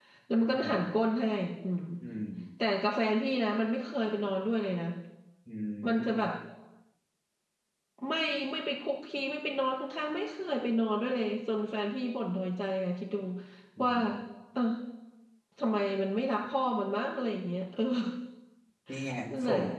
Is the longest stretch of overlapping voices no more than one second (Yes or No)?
Yes